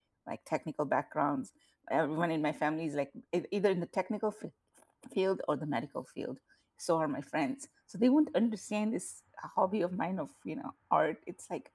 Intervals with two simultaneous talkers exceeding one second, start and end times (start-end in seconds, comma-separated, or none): none